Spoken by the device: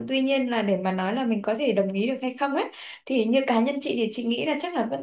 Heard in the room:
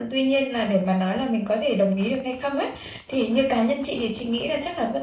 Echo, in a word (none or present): present